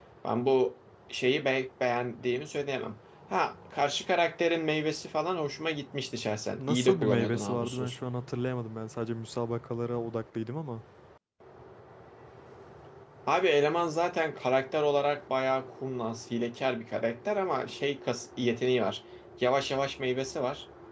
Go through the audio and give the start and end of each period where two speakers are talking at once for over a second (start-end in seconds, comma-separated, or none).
6.6-8.0